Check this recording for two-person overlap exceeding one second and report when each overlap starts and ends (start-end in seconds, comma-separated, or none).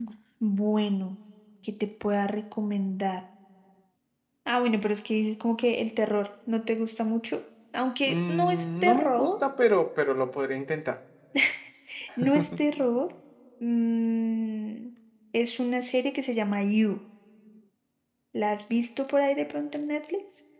8.1-9.3